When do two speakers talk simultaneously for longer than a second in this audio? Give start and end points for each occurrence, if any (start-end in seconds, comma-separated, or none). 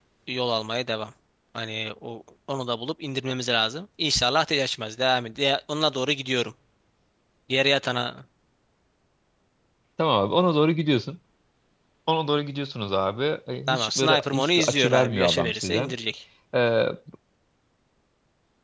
13.7-15.9